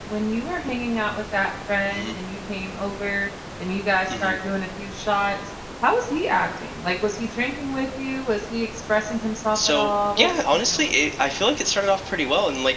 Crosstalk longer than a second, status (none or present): present